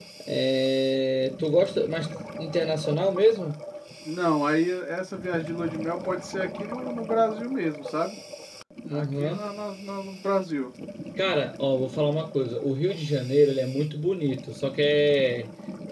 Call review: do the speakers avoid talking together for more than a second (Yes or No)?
Yes